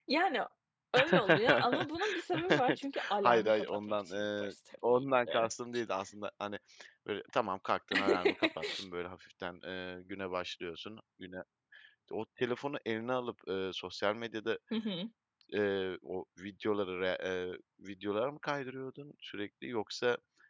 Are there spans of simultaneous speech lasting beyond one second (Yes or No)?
Yes